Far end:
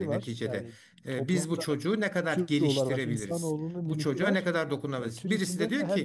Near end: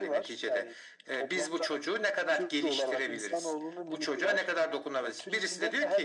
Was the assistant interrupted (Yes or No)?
No